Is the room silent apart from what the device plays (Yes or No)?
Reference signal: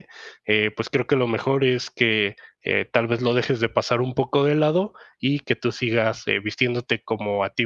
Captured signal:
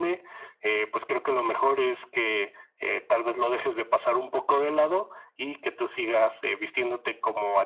Yes